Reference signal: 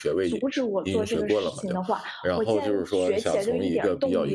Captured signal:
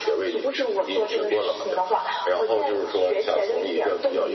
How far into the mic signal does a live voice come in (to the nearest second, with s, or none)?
none